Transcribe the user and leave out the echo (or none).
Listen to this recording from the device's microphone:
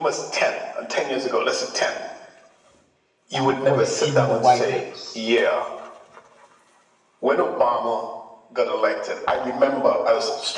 uh, were in the White House